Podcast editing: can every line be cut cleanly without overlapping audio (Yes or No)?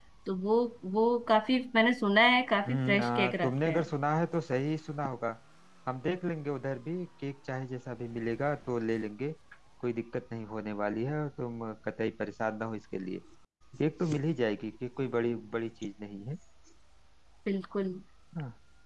No